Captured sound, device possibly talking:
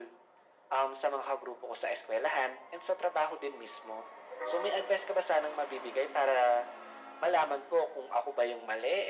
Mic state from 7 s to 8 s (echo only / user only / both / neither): echo only